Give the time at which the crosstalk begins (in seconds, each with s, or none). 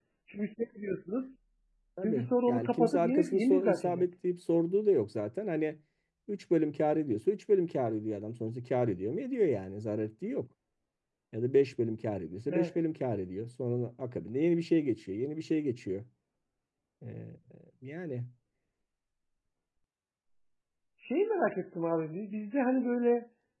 2.0 s